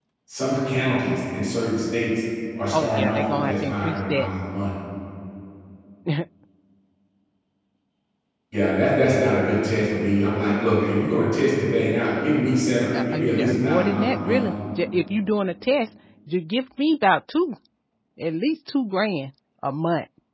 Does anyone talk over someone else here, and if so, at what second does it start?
3 s

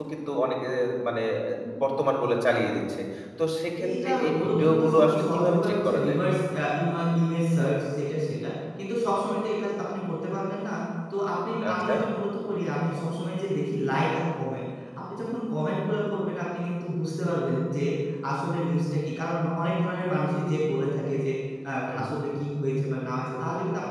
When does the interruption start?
4 s

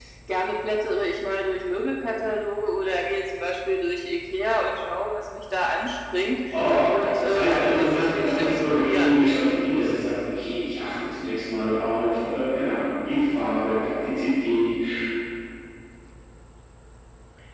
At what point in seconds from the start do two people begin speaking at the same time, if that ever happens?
7 s

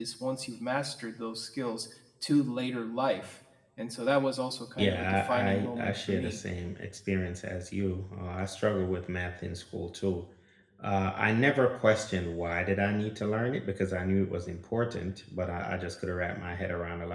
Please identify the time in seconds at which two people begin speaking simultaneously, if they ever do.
5 s

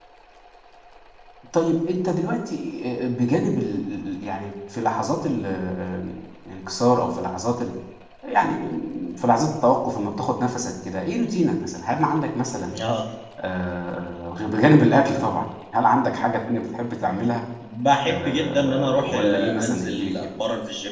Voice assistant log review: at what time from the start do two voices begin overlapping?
18 s

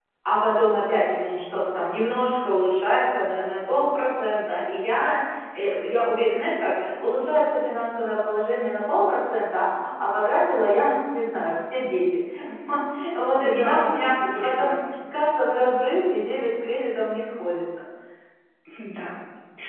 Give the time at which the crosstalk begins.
13 s

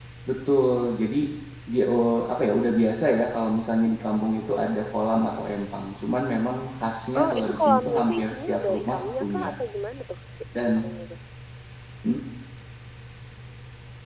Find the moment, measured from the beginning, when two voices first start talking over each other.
7 s

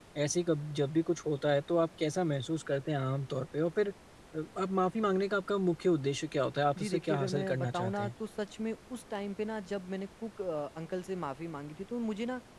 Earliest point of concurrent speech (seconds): 7 s

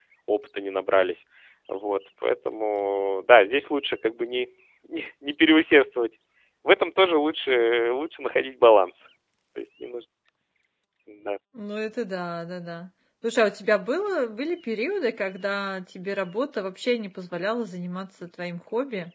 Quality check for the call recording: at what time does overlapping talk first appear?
none

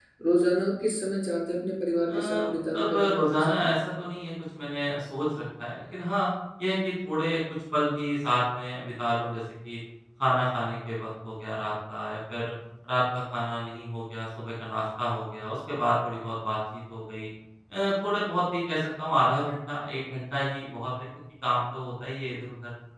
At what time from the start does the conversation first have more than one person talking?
2 s

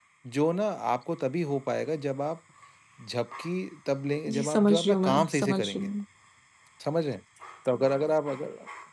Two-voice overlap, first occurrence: 4 s

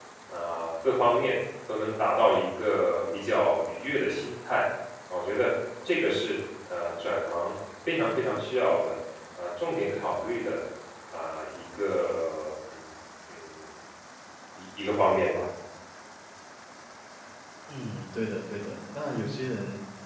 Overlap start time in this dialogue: none

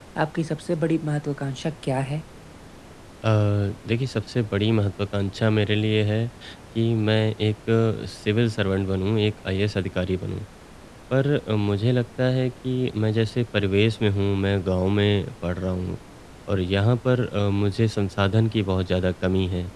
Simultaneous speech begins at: none

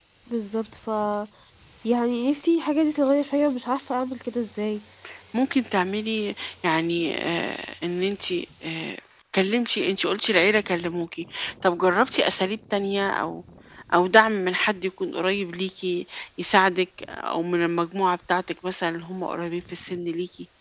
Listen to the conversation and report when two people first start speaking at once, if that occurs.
none

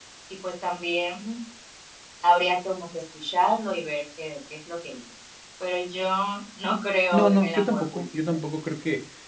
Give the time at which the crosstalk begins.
7 s

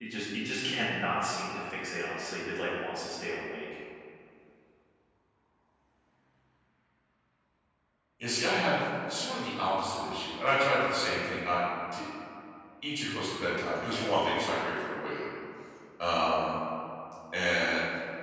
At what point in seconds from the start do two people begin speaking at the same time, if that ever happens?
none

